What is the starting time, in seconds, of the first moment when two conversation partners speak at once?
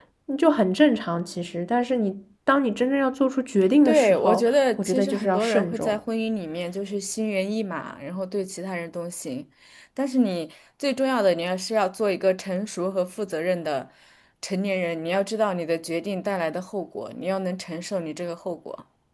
3.9 s

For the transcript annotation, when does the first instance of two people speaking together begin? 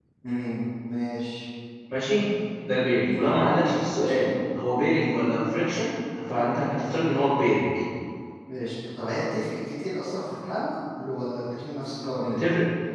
none

